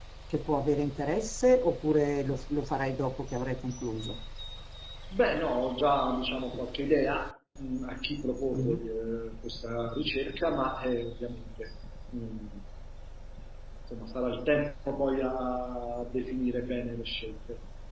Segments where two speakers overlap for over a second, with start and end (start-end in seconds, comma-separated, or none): none